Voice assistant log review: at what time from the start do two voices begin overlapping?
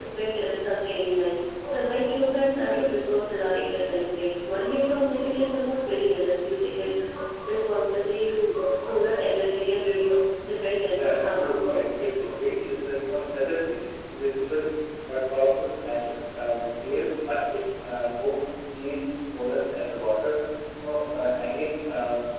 10.9 s

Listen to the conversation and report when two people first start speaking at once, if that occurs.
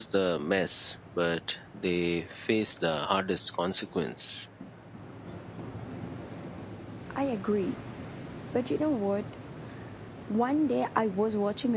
none

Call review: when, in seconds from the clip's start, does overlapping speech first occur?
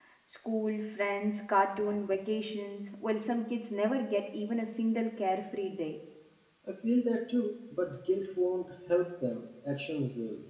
none

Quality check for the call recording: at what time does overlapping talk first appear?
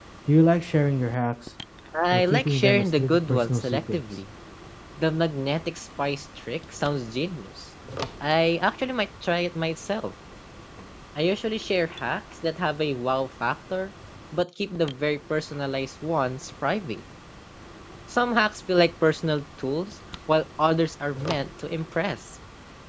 2.1 s

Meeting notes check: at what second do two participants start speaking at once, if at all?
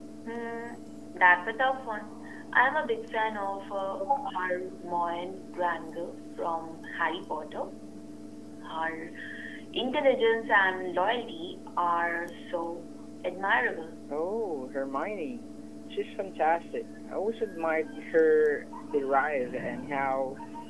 none

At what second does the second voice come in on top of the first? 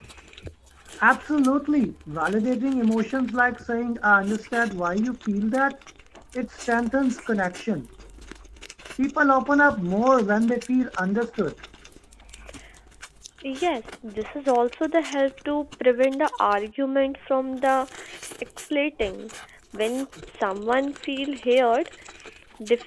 none

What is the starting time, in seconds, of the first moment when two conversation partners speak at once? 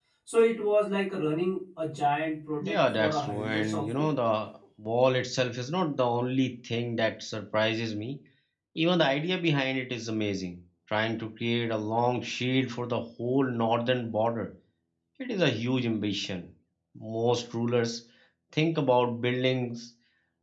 2.6 s

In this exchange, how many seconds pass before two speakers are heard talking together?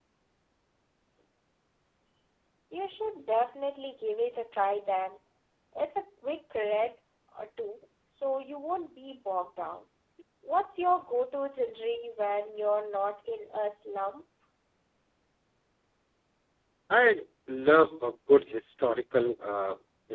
none

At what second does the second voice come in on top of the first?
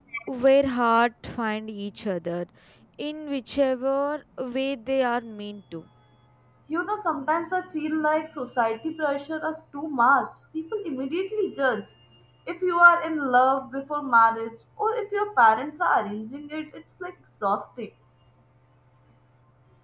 none

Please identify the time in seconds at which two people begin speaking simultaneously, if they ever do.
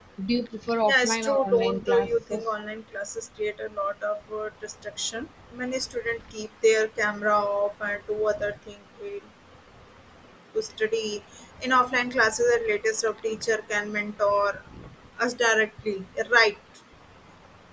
0.9 s

